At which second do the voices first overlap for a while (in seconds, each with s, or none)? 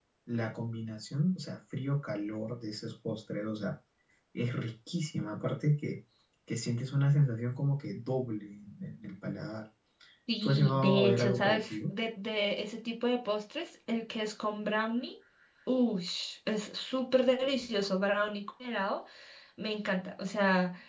10.4 s